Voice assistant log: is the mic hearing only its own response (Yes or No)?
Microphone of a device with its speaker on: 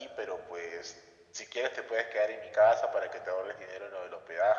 Yes